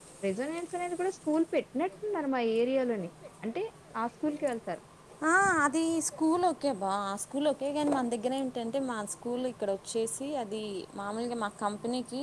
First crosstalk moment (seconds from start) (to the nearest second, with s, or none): none